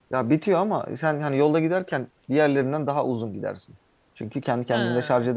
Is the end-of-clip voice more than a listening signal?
No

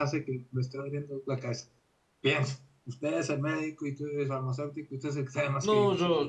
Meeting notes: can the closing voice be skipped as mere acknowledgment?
No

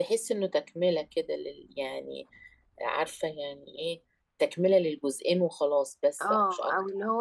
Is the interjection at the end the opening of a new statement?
Yes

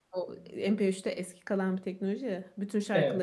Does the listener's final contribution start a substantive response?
No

